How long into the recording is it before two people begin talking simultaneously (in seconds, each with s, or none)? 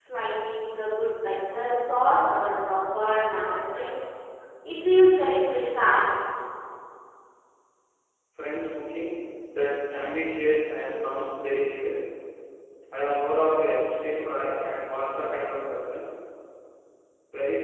none